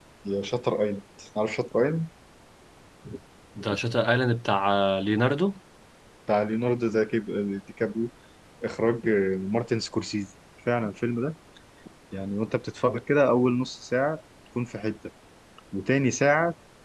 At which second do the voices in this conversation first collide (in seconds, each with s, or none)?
none